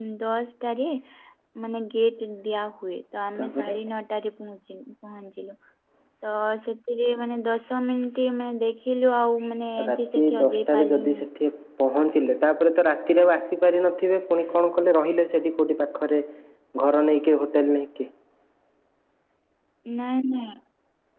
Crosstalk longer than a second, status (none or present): present